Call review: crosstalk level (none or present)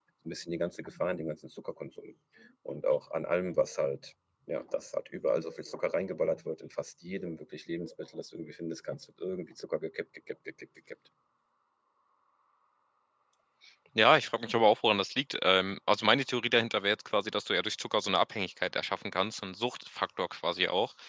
none